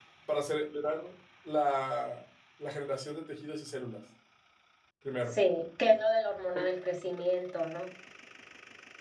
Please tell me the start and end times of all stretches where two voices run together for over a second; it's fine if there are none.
none

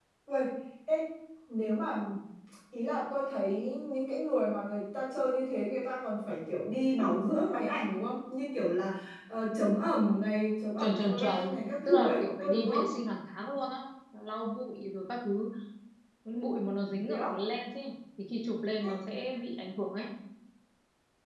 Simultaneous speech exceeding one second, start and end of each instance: 10.8-12.8

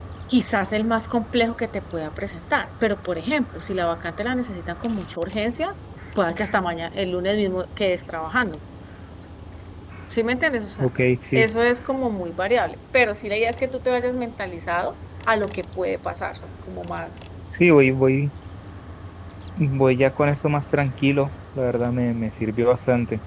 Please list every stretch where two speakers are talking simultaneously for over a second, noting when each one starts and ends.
none

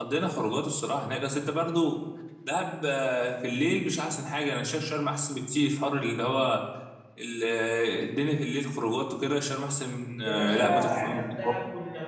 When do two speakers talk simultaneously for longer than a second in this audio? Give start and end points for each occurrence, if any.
10.2-11.5

